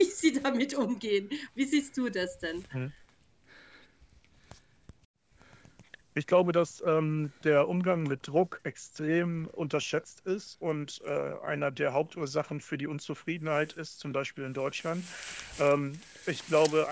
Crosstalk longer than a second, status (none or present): none